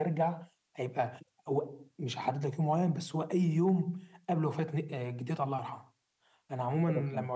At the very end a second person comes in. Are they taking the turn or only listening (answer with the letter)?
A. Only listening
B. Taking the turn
A